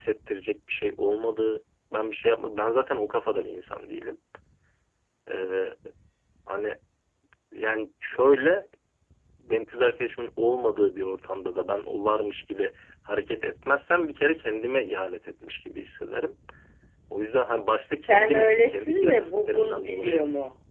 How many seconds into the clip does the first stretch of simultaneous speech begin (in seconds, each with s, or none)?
18.1 s